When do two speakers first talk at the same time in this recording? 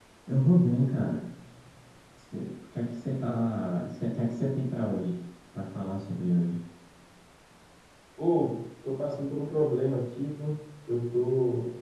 none

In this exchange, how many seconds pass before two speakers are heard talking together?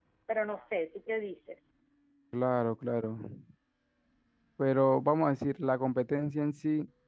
none

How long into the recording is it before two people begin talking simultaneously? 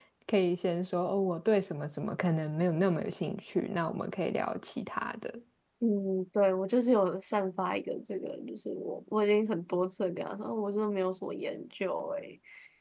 none

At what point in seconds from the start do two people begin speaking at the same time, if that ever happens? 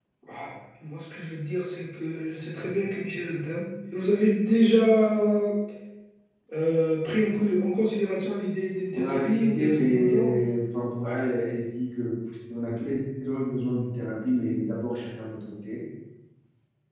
8.9 s

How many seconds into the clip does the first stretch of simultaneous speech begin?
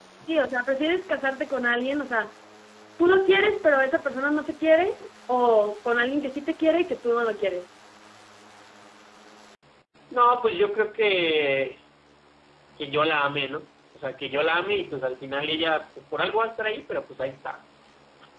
none

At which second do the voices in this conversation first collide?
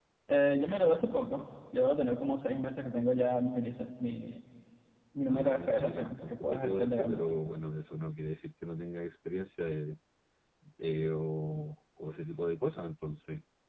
5.3 s

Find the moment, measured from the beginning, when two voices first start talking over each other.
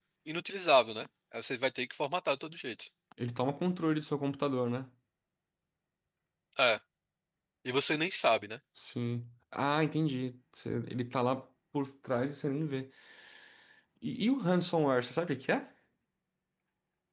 none

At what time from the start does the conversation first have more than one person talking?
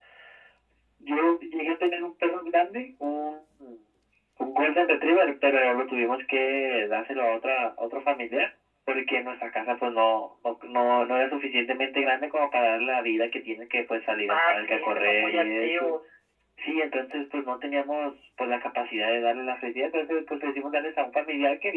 14.3 s

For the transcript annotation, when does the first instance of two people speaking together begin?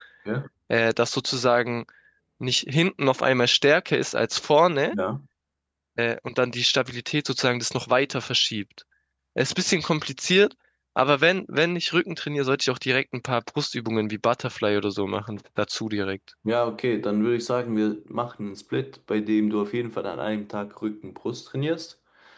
none

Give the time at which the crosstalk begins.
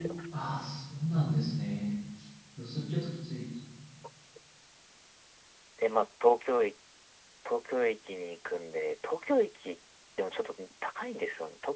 none

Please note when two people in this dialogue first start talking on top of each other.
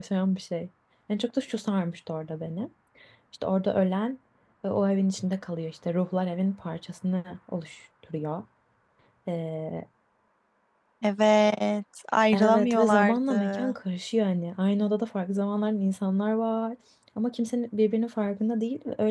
12.3 s

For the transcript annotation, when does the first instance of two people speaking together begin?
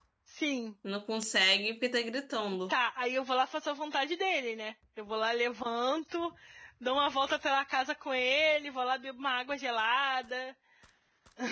none

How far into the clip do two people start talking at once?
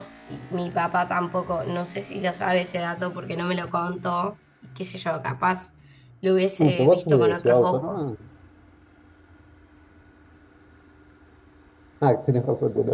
6.6 s

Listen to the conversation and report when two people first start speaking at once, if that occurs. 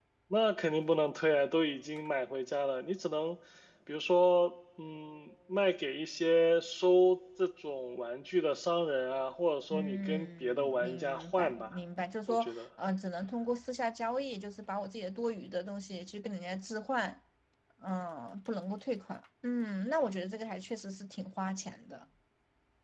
9.7 s

